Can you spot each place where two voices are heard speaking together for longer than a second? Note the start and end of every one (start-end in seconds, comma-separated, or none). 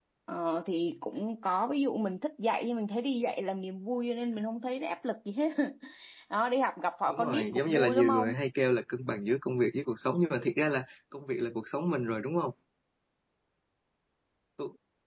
7.1-8.3